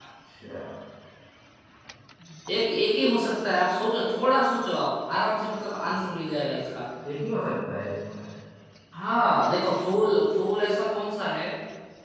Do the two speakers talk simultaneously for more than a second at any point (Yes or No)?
No